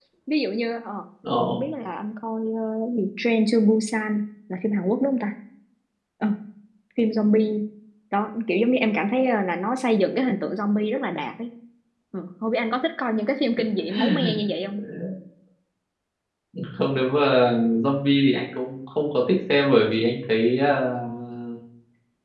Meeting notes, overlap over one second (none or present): none